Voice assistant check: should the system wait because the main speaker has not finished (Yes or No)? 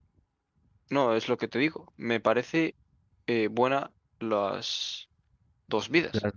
No